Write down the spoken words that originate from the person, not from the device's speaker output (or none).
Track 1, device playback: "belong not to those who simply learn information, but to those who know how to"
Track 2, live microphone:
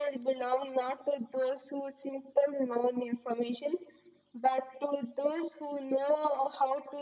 none